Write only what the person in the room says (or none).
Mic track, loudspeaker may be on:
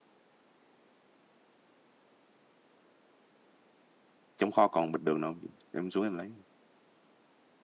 trong kho còn bịch đường đâu không chị em xuống em lấy